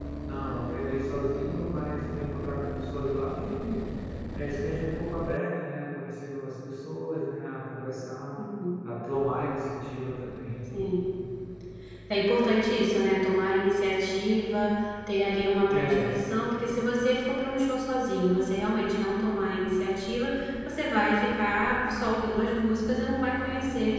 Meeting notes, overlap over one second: none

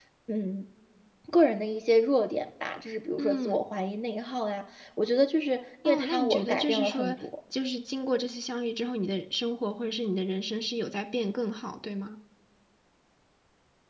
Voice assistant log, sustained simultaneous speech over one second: present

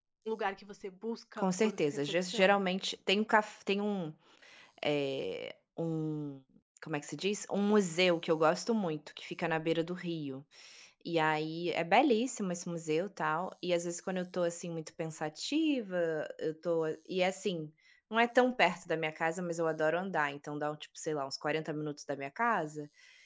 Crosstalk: present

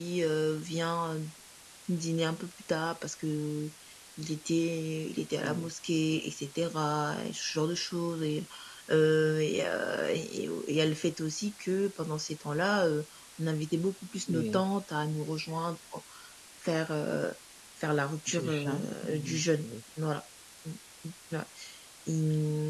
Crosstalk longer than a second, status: present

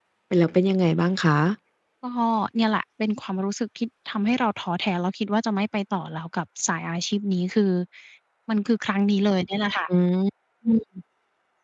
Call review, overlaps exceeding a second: none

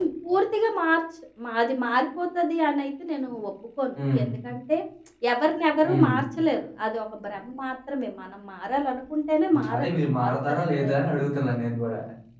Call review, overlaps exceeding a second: present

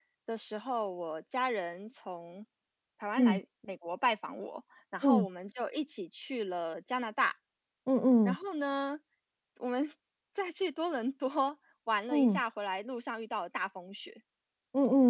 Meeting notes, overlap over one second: none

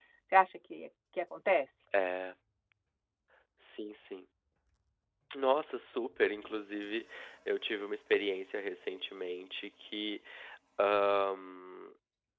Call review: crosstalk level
none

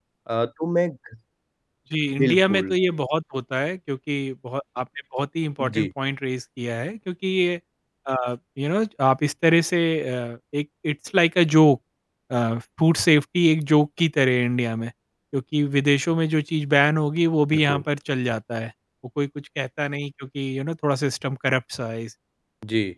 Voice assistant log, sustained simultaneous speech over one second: none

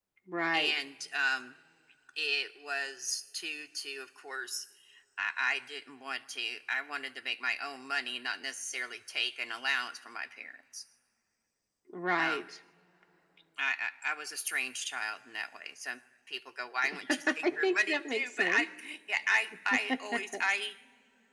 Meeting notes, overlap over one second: present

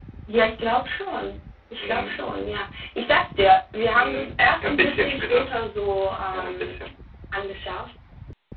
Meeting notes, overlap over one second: present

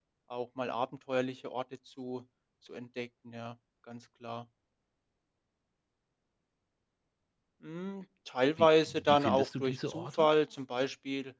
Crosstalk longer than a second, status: present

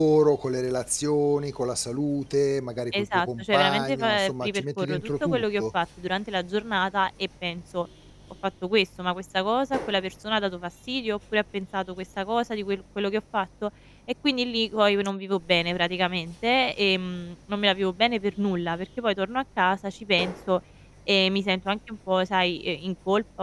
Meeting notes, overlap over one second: present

